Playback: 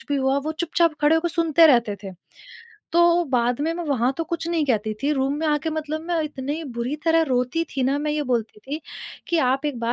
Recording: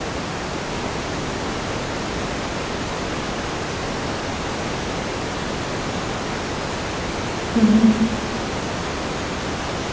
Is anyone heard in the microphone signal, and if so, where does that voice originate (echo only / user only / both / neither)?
user only